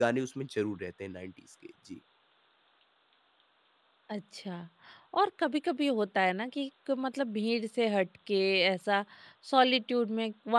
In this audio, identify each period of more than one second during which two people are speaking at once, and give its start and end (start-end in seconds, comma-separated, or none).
none